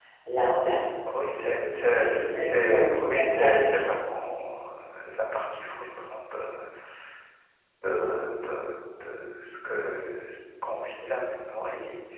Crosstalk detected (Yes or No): Yes